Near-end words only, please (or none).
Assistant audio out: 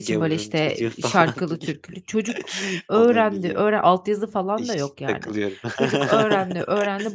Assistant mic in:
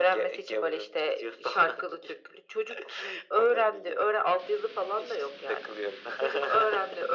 none